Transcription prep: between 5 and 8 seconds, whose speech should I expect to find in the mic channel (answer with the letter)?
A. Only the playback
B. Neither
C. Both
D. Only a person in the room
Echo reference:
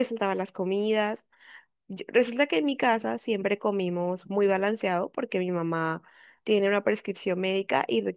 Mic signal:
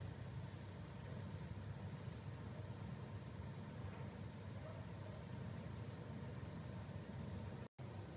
B